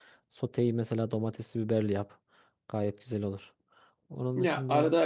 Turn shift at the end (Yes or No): Yes